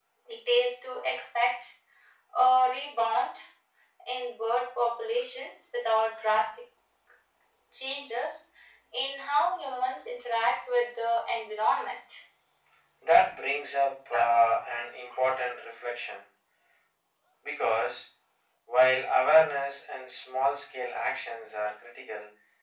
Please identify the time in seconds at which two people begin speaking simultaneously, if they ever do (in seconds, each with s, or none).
none